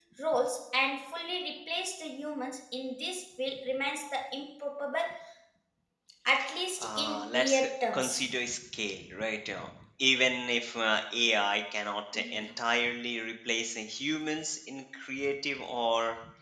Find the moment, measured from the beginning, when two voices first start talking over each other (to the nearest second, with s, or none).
7 s